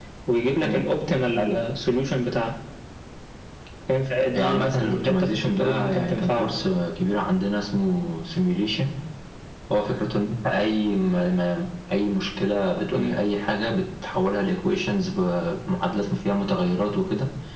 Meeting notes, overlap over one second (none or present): present